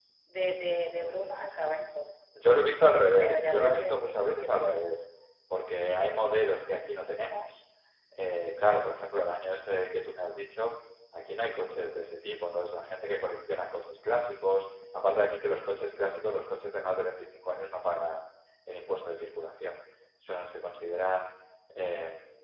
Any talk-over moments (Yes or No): Yes